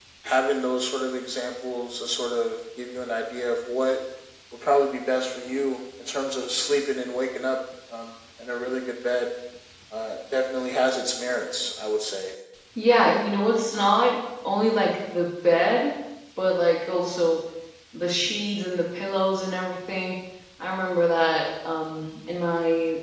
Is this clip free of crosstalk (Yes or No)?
Yes